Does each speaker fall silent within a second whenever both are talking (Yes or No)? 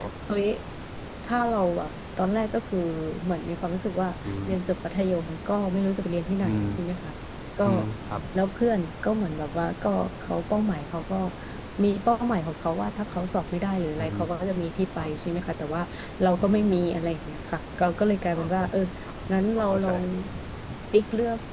Yes